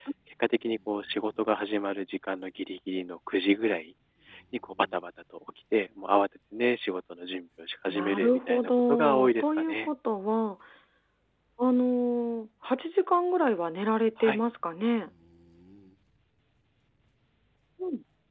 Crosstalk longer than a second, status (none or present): present